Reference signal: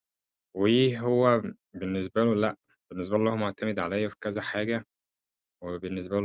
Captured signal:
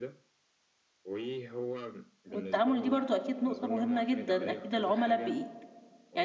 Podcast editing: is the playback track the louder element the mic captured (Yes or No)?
No